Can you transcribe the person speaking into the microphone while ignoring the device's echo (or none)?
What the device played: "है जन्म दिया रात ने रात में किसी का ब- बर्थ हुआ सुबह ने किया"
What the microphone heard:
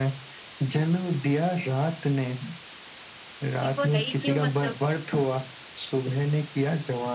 फिर वो है ही क्यों मतलब